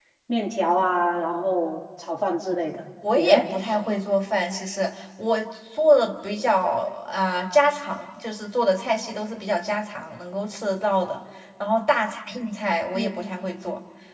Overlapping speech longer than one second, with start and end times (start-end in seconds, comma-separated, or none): none